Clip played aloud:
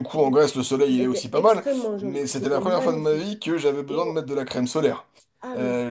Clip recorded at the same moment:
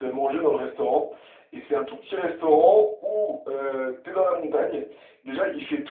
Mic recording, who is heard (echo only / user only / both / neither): user only